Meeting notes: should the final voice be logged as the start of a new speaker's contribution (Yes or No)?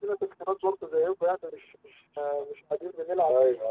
Yes